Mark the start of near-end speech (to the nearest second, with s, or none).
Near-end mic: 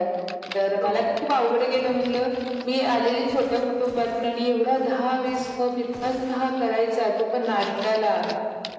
1 s